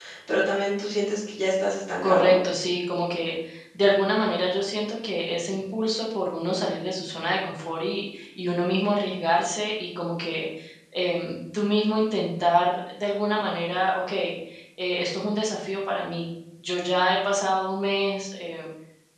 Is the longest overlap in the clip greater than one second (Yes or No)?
No